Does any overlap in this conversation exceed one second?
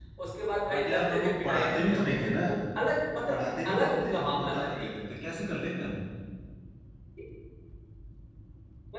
Yes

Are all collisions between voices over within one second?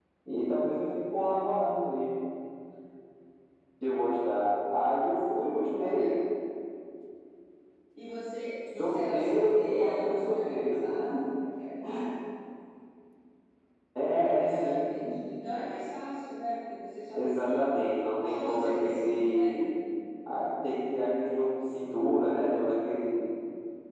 No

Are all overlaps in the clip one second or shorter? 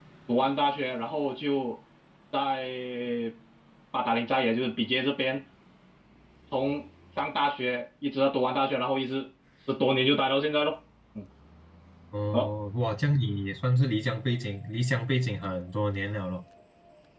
Yes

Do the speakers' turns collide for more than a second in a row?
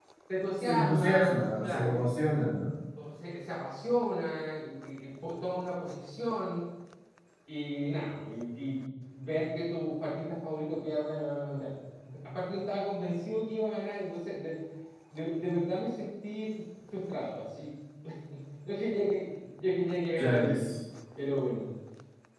Yes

